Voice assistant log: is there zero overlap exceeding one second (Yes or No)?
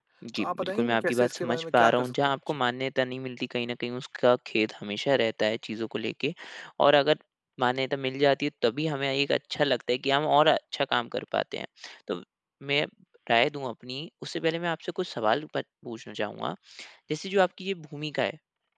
No